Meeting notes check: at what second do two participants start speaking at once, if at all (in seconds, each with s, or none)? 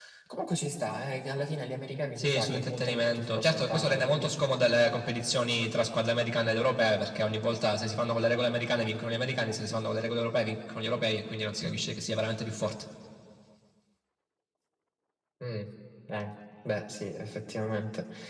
2.2 s